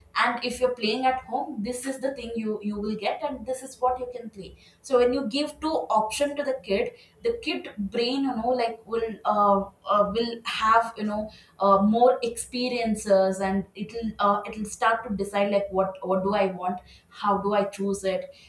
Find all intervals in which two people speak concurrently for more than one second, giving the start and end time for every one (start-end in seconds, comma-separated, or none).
none